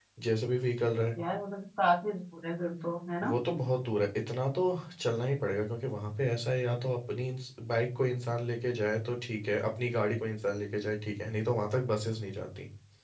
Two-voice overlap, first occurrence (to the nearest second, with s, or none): none